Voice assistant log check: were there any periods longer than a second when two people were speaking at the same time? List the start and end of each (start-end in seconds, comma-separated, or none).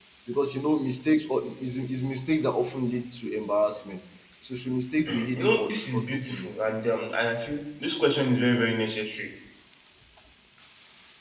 5.2-6.5